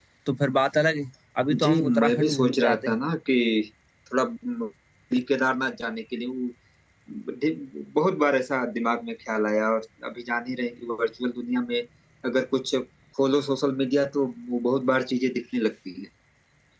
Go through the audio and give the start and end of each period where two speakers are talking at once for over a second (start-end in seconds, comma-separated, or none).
1.6-3.0